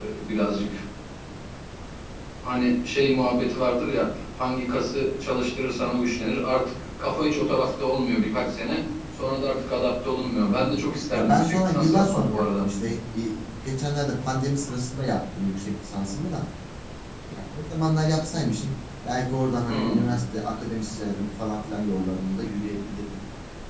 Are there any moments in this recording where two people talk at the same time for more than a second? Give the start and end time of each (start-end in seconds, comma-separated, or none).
11.1-12.7